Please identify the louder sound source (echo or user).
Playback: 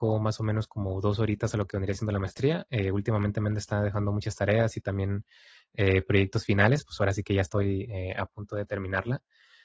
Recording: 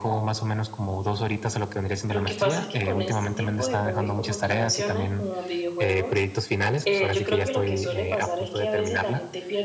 echo